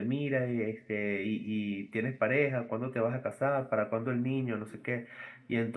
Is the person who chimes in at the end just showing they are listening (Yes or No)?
Yes